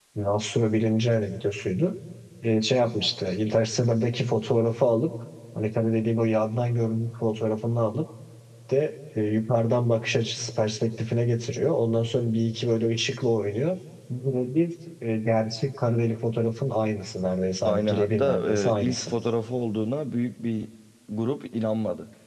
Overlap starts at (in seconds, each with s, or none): 17.6 s